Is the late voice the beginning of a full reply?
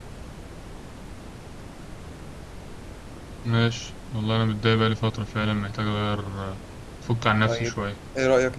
Yes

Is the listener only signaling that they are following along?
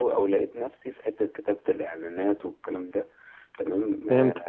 Yes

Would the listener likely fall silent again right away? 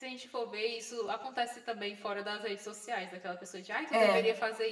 Yes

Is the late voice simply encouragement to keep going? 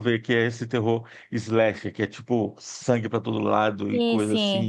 Yes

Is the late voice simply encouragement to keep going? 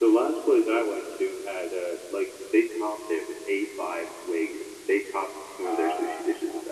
Yes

